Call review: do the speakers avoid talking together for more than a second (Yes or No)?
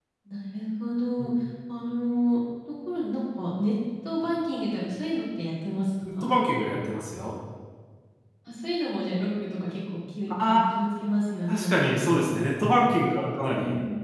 Yes